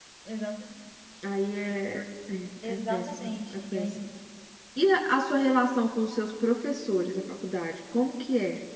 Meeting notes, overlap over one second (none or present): present